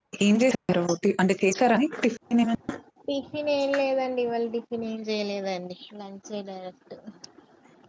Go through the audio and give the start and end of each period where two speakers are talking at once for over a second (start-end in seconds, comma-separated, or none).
none